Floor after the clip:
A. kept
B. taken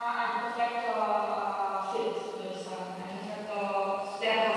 B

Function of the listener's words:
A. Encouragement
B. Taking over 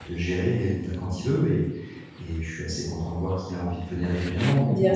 B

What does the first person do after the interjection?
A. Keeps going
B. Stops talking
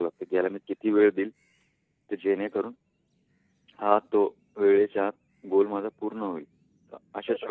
B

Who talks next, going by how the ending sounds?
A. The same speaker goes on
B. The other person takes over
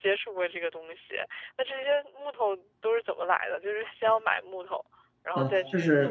B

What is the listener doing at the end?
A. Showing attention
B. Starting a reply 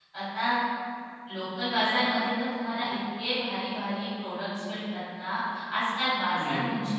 A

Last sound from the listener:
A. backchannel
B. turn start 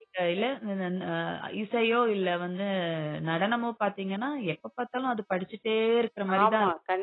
B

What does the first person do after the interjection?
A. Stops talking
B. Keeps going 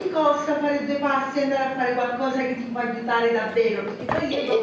B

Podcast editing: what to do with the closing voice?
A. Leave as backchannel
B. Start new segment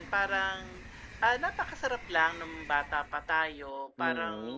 A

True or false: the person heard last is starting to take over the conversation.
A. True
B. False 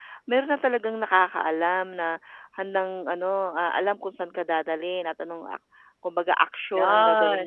B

